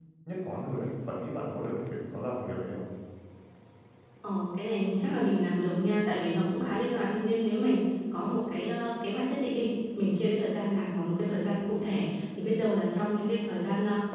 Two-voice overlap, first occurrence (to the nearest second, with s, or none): none